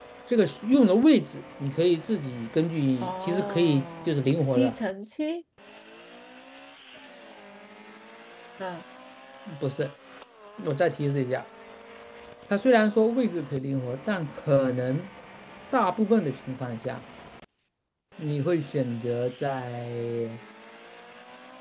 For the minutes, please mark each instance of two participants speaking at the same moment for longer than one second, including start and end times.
3.0-4.7

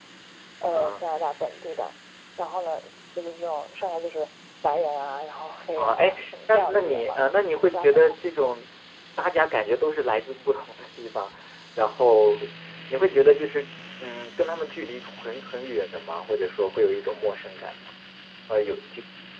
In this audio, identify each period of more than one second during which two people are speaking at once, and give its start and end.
5.8-7.2

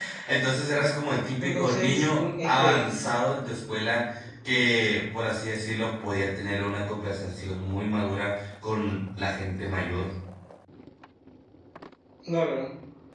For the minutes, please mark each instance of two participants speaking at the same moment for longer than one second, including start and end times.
1.4-2.8

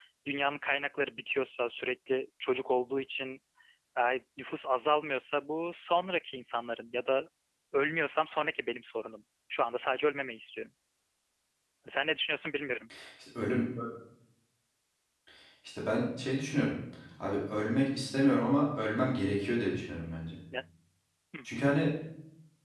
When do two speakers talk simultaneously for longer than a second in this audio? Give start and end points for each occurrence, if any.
none

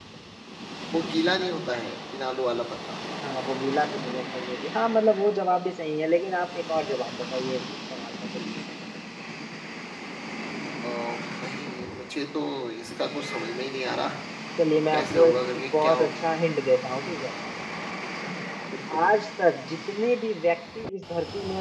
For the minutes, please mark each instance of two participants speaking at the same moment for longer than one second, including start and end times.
14.9-16.1

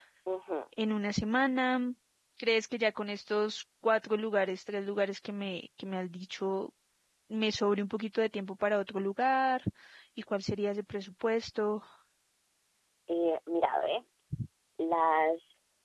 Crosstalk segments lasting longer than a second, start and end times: none

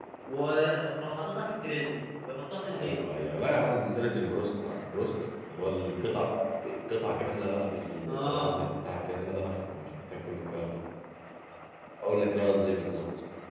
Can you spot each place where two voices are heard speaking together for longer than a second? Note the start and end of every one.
none

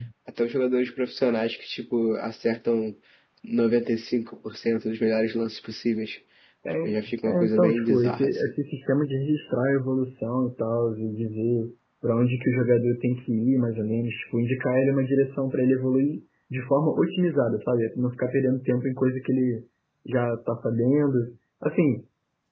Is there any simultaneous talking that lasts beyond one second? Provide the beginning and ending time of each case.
7.3-8.5

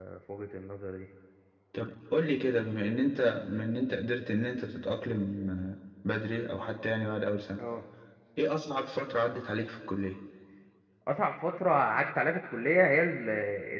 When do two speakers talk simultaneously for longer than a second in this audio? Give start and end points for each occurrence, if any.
none

